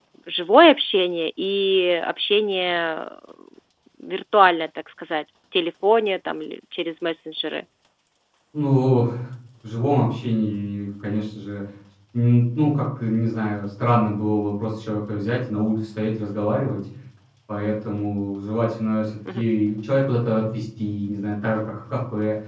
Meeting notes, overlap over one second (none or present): none